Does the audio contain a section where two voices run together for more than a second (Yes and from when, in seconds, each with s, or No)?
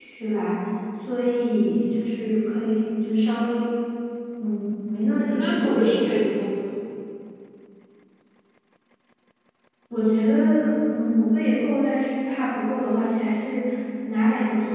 Yes, from 5.2 s